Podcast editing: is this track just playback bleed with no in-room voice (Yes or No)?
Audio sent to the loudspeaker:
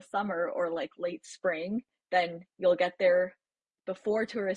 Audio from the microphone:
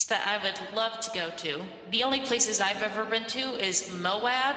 No